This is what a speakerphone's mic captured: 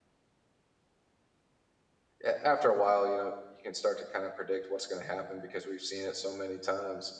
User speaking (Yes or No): Yes